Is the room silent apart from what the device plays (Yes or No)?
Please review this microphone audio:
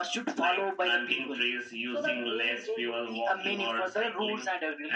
Yes